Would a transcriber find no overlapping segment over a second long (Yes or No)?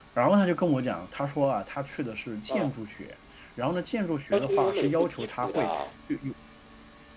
No